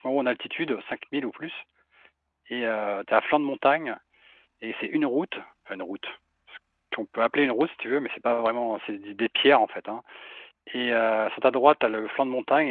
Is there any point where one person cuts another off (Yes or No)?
No